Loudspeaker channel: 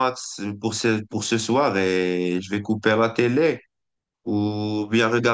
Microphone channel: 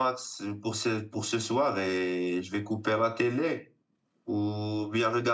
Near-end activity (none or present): none